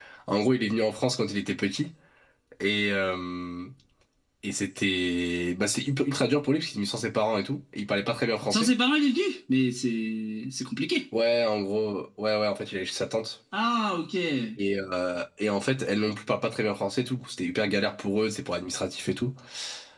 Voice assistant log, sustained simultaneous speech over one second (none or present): none